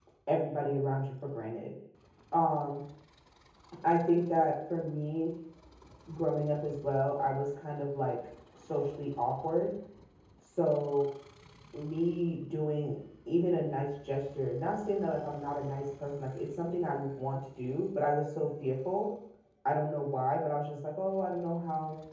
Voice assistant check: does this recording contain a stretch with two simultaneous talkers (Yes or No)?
No